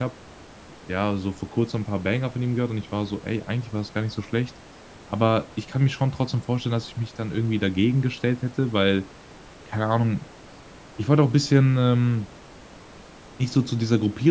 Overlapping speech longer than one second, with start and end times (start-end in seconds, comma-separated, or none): none